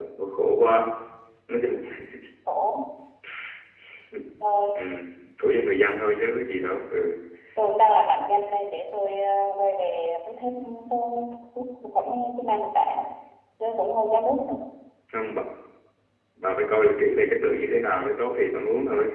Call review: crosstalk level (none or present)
none